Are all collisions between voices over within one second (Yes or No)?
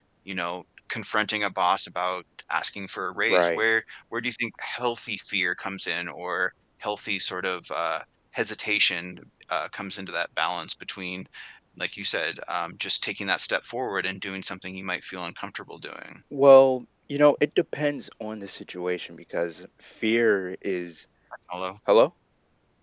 Yes